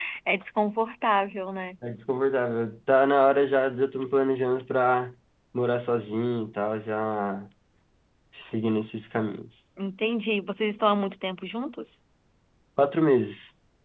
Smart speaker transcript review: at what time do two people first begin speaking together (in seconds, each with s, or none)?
none